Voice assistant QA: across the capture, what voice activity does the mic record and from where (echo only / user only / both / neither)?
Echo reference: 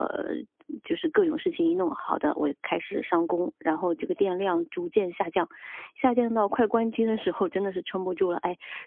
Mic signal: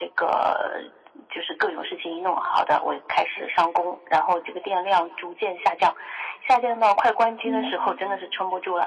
both